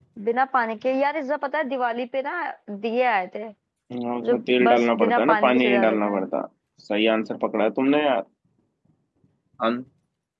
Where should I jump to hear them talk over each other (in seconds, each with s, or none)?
4.3 s